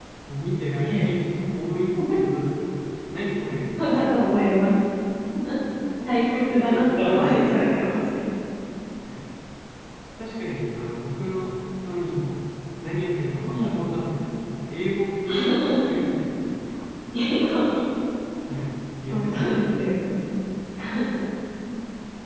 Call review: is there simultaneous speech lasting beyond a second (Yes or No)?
Yes